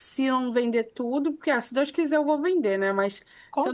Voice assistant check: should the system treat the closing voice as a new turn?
No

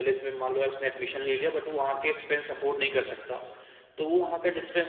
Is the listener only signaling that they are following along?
Yes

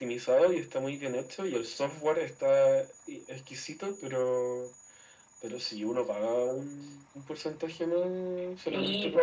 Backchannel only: No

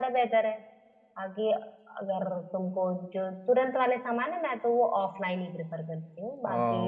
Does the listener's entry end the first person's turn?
Yes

